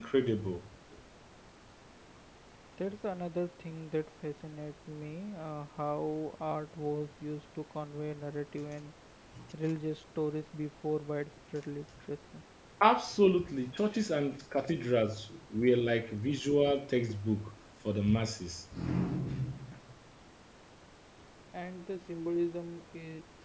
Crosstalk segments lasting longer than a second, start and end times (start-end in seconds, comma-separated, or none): none